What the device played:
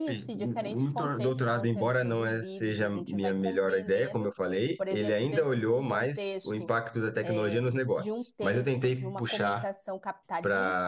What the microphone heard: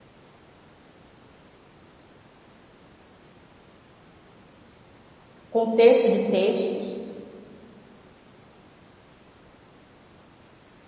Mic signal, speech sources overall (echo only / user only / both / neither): user only